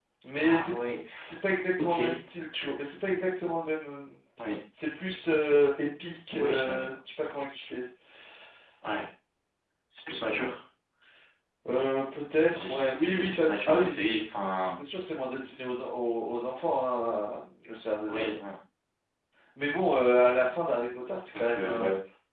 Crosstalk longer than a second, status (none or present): present